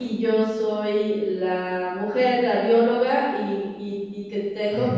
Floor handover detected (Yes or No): No